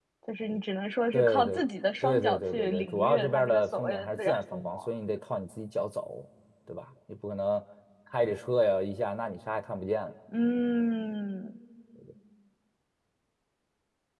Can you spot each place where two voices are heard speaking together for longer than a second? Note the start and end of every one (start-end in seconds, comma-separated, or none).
2.0-4.9